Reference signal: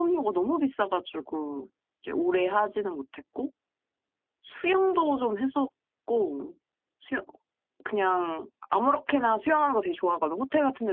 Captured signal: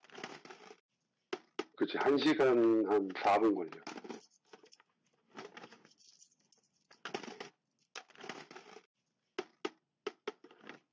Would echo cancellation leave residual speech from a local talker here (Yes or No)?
Yes